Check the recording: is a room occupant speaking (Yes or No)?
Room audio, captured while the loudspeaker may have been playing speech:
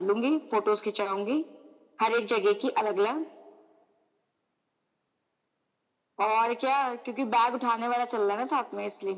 No